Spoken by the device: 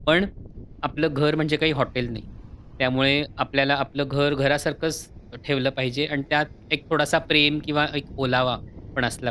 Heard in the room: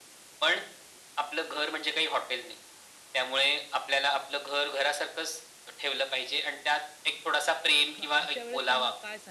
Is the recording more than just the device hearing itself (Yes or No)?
Yes